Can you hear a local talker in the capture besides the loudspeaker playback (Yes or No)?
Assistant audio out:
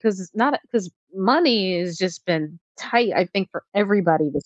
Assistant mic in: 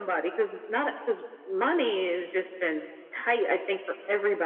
No